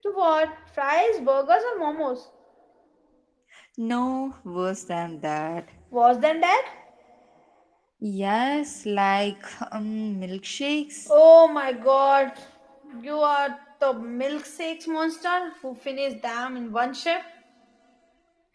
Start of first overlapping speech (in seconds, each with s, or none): none